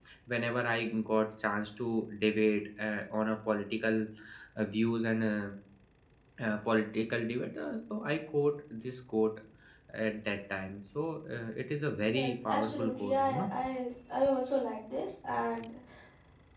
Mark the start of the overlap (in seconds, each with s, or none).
12.1 s